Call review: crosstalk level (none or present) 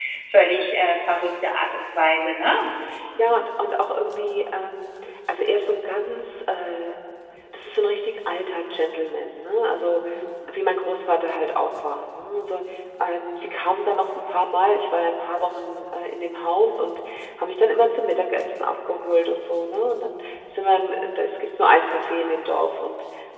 none